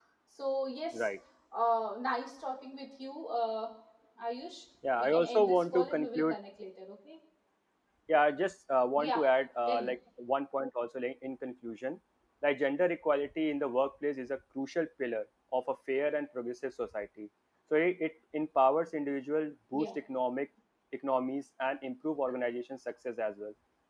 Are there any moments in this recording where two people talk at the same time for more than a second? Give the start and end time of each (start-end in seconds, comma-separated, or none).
5.0-6.4